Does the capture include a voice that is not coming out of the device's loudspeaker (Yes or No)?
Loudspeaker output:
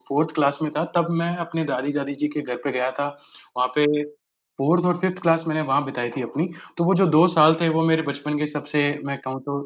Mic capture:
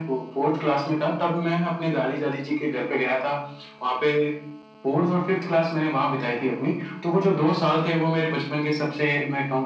No